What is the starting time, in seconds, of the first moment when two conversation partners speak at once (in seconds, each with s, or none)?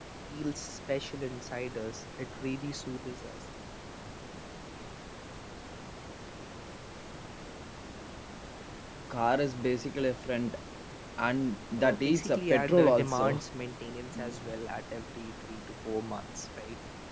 11.8 s